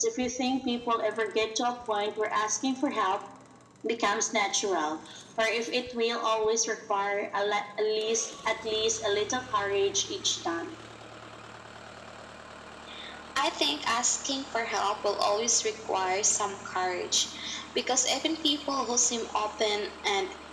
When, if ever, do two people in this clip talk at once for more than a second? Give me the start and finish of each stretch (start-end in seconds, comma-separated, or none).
none